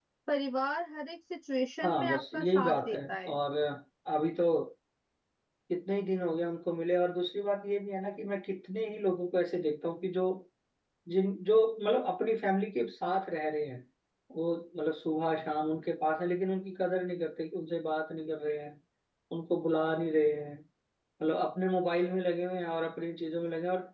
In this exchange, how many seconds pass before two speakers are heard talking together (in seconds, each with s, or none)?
1.8 s